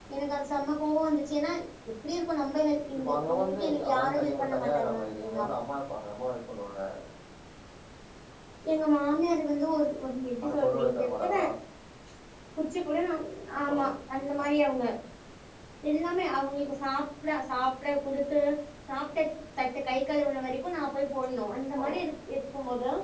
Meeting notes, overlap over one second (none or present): present